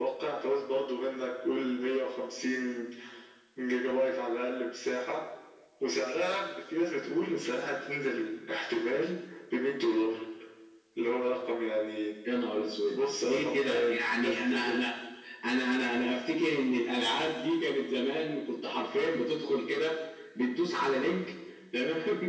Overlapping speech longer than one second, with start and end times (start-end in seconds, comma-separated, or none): 12.9-14.8